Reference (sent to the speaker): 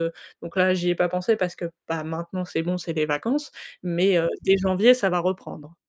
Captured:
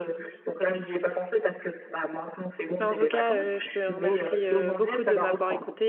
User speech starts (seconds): 3 s

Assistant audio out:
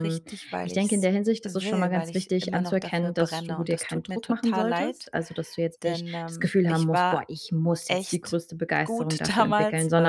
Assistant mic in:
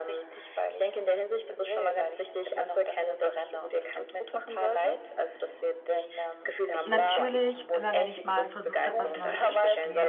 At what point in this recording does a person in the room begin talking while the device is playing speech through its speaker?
7 s

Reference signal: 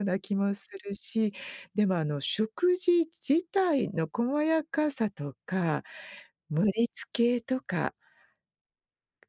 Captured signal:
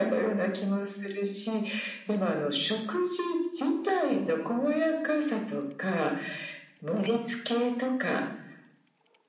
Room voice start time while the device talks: none

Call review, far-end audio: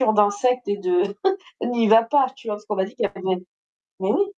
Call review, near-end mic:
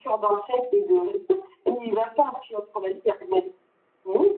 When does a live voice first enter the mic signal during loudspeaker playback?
none

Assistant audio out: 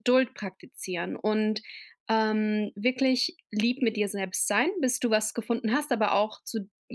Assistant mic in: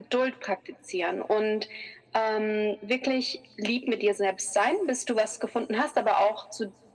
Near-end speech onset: none

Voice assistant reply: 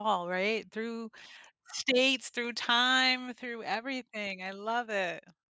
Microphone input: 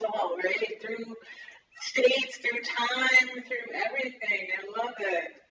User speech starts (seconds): none

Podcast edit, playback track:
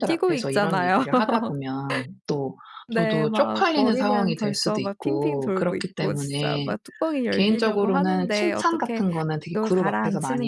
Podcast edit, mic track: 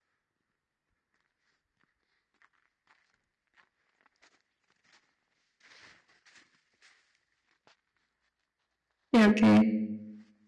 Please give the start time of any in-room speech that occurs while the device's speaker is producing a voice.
9 s

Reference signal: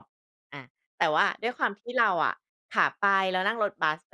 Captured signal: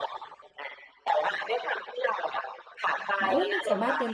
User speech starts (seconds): 3 s

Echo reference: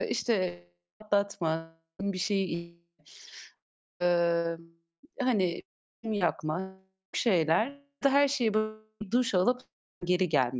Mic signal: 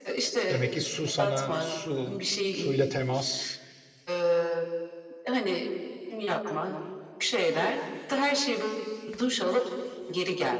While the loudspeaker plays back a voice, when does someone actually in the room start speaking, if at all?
0 s

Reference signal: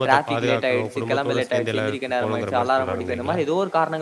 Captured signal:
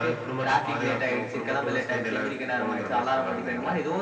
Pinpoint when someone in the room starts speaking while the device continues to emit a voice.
none

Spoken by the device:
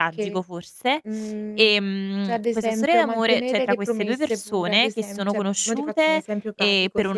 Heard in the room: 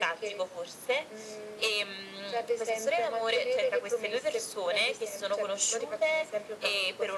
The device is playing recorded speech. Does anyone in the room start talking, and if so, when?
none

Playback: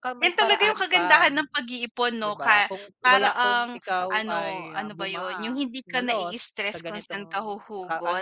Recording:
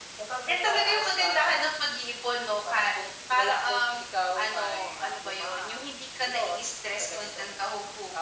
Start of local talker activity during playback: none

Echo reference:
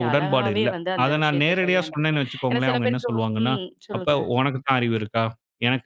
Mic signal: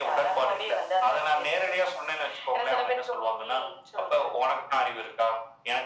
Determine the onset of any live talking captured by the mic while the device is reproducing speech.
none

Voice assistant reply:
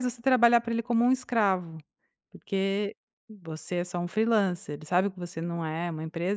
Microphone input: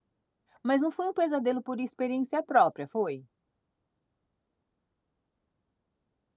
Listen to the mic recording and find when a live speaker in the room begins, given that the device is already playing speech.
1 s

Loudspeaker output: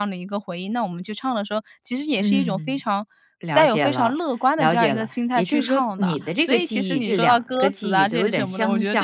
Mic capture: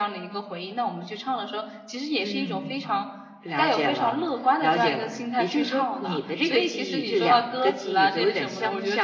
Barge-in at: none

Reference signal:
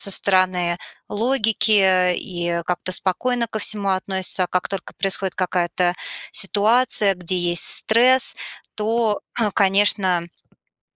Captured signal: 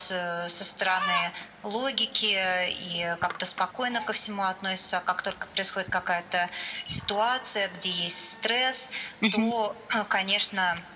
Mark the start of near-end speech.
9 s

